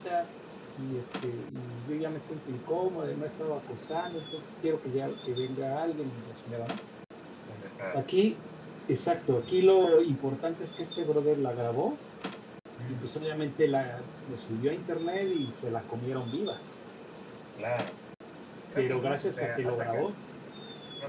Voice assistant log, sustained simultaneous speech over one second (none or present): present